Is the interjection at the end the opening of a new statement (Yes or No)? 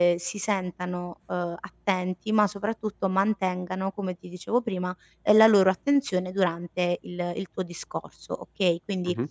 No